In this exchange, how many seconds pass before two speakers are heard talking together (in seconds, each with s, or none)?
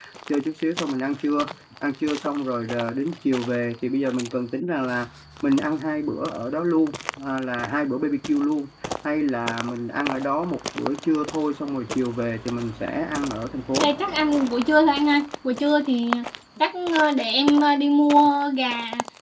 none